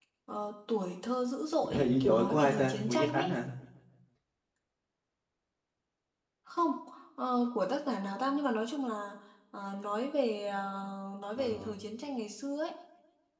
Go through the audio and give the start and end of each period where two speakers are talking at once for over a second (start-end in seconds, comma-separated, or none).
1.7-3.4